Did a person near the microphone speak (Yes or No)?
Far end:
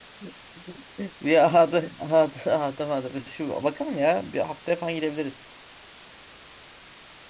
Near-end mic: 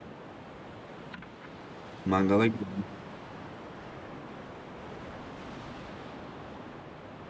Yes